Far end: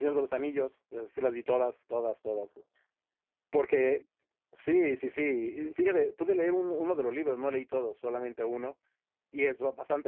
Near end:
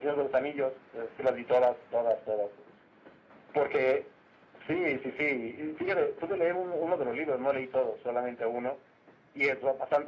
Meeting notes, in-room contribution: none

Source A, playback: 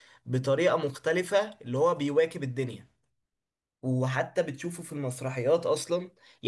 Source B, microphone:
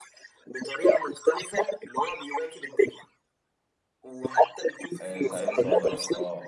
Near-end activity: present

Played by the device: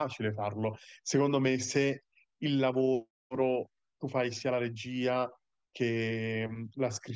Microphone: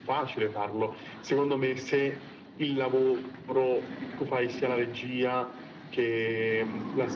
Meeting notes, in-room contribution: none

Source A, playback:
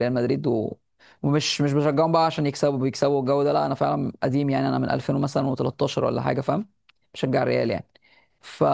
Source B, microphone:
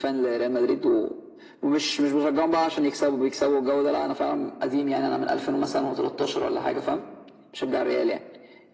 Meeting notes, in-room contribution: none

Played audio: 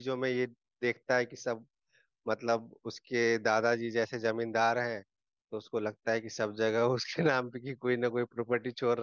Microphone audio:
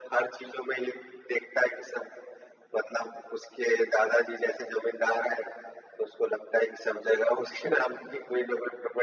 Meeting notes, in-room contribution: none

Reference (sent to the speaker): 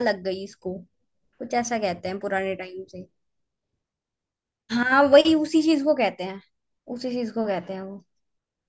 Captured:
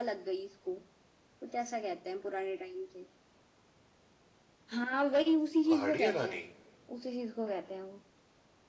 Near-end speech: present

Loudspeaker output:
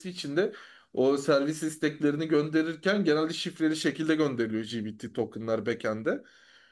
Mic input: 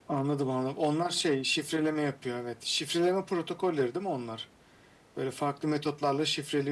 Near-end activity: present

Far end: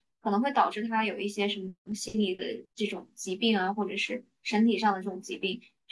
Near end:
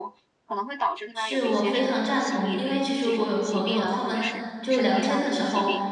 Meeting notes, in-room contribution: present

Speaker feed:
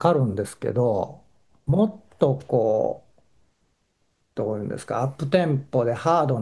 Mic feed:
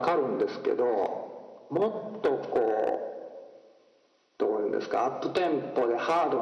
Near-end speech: none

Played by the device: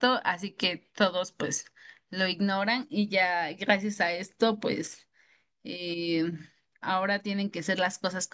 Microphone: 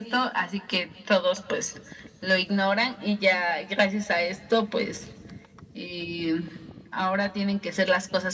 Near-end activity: none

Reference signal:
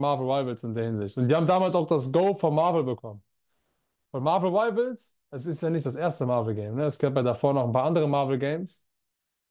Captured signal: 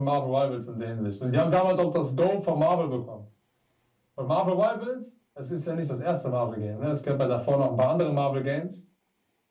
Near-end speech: none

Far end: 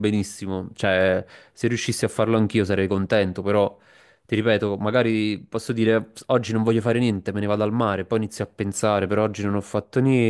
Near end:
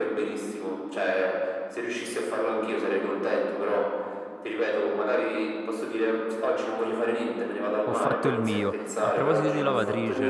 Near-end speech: present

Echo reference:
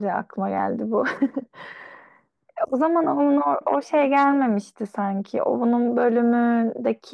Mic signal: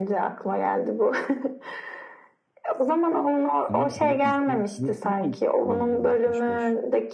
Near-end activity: present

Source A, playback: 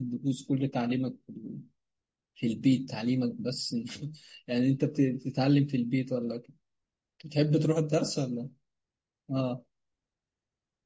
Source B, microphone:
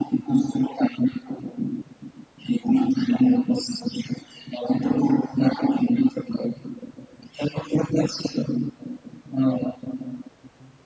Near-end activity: none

